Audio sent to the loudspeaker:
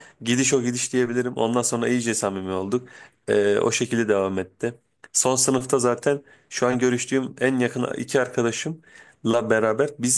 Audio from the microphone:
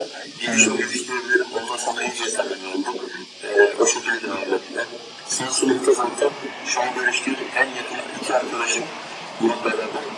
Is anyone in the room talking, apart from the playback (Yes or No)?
Yes